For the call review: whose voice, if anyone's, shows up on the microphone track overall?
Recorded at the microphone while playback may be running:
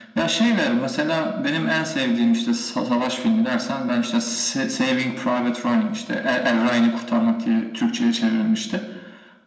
echo only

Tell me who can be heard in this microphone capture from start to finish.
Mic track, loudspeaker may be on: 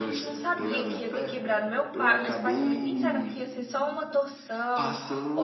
both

